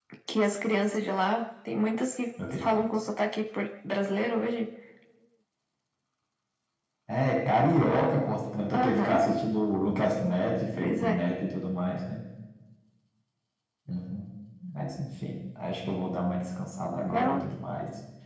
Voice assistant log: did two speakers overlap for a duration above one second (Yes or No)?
No